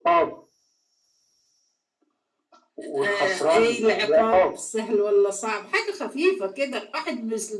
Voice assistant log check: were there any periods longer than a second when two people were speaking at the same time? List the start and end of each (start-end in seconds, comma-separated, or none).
3.0-4.5